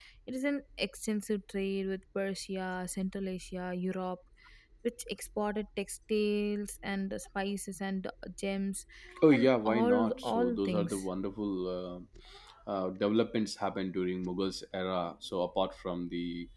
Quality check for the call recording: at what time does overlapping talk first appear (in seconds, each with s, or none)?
9.3 s